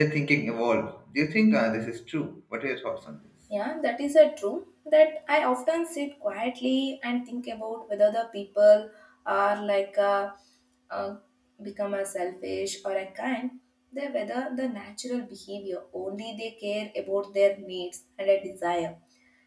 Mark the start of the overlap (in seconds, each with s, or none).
none